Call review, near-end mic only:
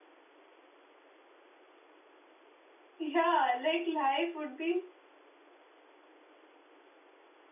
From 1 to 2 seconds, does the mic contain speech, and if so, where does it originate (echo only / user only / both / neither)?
neither